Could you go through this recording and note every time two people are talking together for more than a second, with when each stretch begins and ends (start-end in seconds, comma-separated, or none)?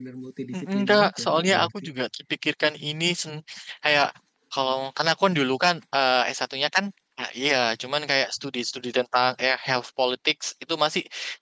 0.5-1.8